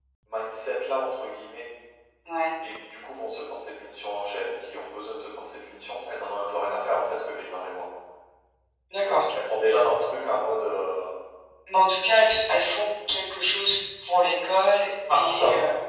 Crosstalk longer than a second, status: none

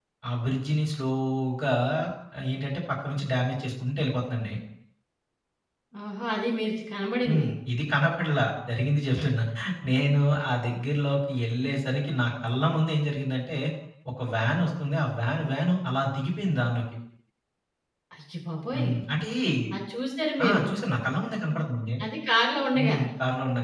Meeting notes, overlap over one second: none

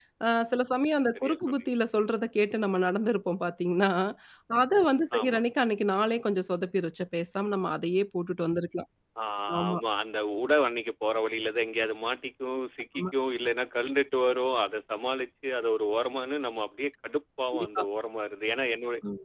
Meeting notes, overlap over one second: none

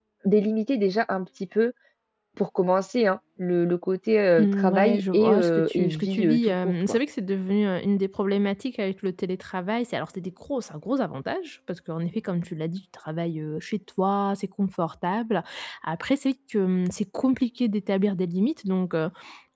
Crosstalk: present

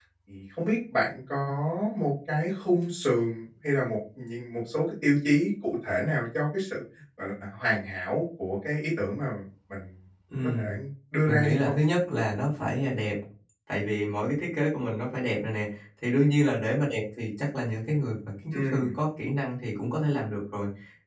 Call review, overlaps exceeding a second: none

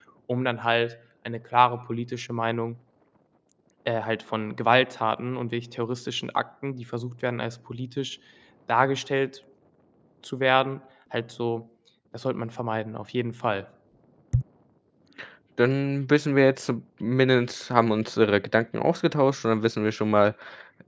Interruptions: none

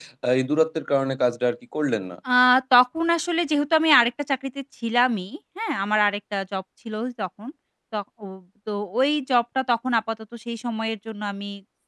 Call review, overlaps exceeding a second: none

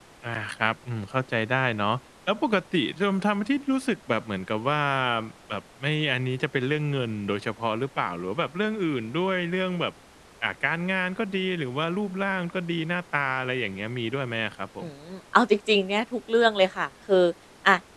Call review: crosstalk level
none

